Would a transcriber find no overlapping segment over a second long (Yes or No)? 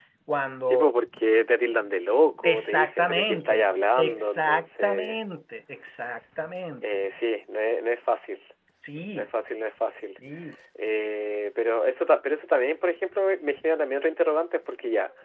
No